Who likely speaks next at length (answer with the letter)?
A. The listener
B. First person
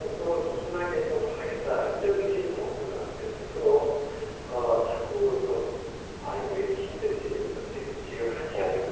B